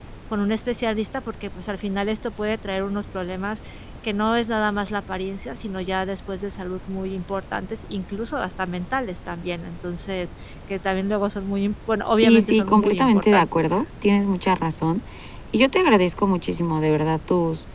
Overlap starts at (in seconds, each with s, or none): 12.1 s